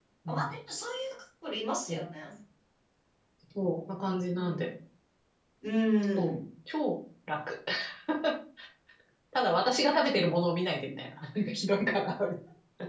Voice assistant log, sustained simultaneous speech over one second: none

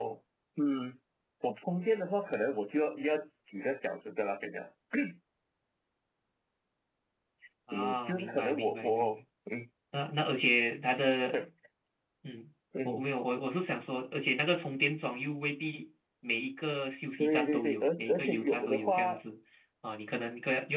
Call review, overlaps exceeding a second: present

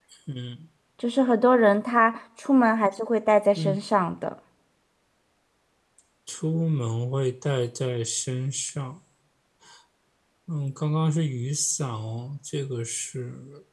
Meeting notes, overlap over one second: none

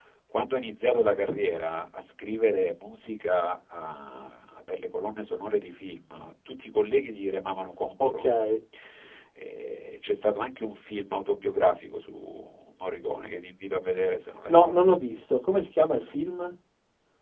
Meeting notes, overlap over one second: none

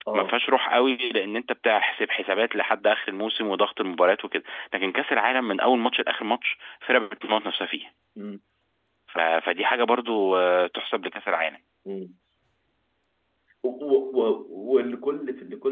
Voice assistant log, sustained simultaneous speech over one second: none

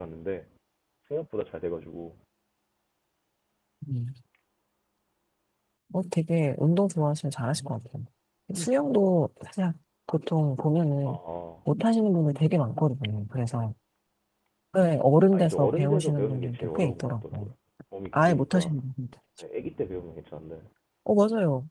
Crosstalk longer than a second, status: present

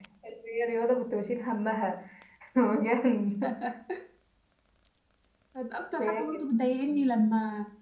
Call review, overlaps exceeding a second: none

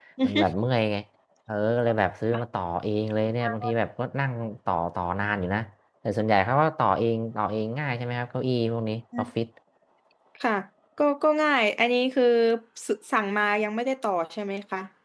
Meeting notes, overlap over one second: none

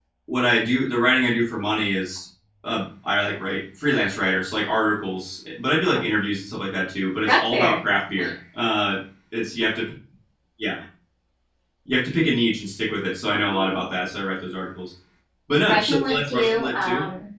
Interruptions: present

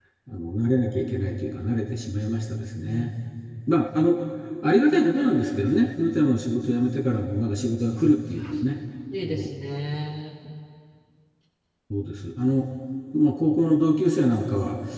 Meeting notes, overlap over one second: none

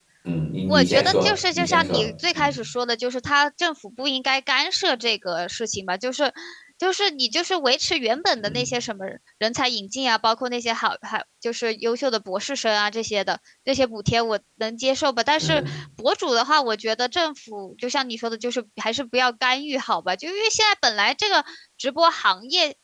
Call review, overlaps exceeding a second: present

